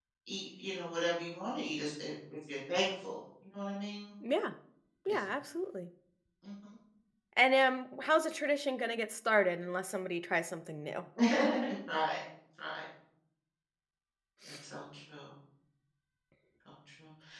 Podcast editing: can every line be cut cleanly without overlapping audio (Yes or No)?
Yes